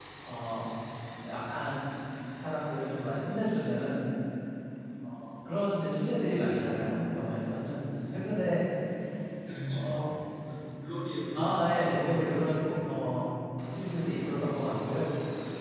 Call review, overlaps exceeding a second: present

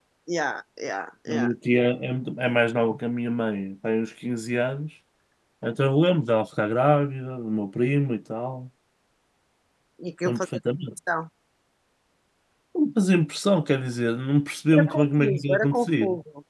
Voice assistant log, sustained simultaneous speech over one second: present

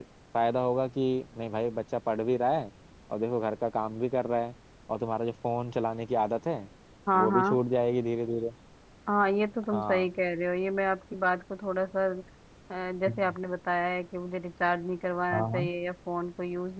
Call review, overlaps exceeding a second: none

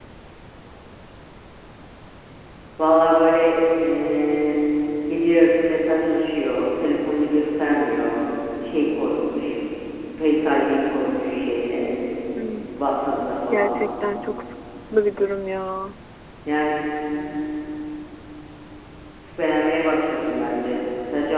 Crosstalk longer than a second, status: none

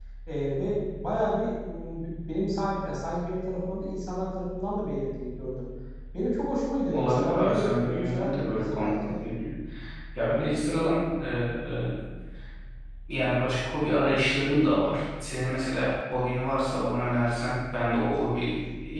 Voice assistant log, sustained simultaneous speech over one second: present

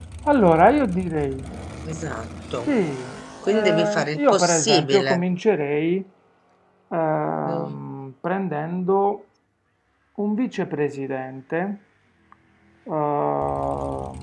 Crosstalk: present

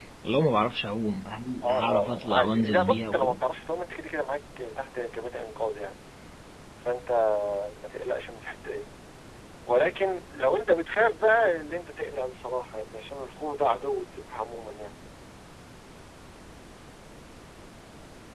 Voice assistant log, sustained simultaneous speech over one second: present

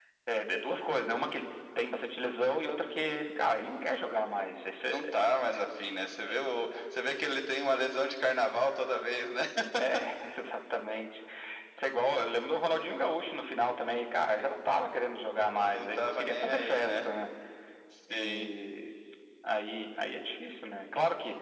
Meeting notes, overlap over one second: present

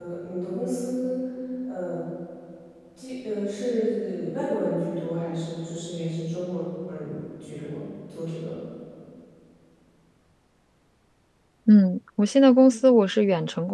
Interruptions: none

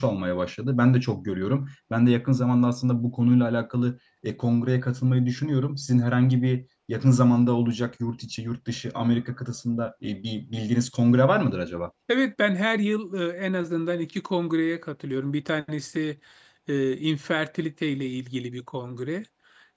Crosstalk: none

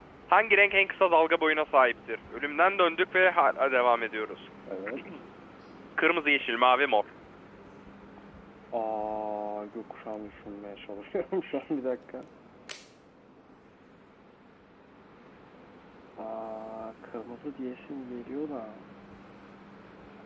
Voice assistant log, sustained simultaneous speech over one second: none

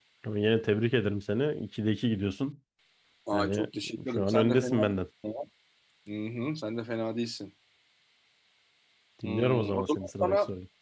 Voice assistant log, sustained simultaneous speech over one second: present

